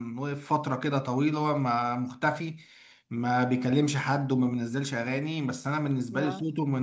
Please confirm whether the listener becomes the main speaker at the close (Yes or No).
Yes